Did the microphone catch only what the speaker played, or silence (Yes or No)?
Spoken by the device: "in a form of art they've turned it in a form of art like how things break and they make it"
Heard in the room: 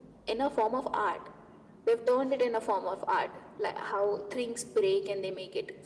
Yes